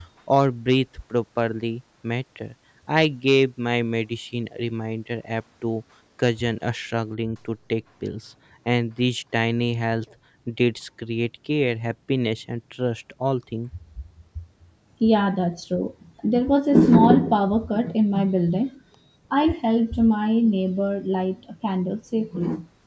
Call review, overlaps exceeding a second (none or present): none